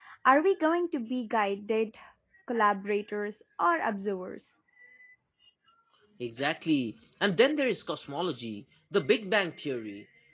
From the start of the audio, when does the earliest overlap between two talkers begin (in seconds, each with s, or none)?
none